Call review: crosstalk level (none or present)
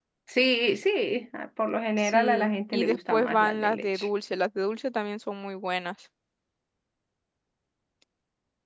present